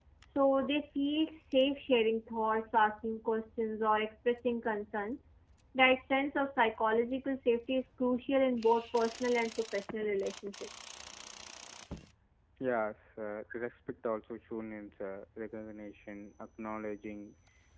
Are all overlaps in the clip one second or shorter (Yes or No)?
Yes